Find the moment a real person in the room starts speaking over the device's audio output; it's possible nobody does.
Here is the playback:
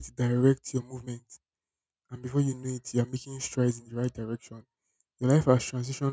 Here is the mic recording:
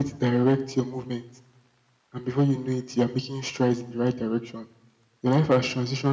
none

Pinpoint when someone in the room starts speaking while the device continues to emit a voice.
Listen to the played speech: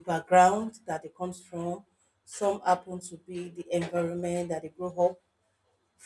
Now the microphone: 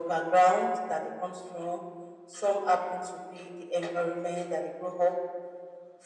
none

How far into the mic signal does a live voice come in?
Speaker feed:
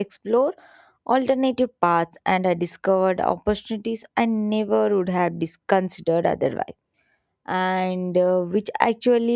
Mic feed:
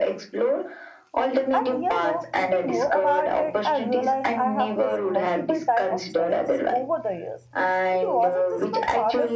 2 s

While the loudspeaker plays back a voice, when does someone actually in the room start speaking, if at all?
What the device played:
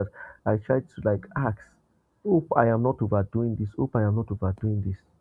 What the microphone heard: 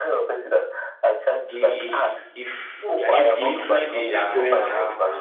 1 s

